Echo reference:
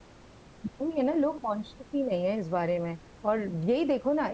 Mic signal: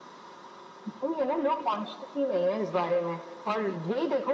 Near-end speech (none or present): none